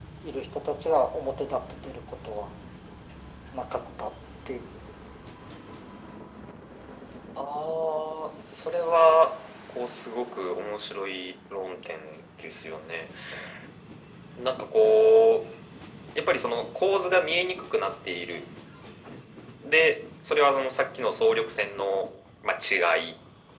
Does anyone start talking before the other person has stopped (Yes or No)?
No